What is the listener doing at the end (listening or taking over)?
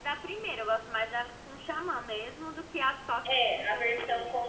taking over